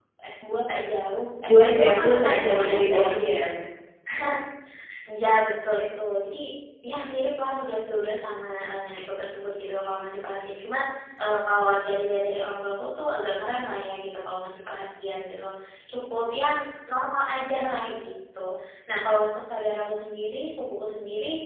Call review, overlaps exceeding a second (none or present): present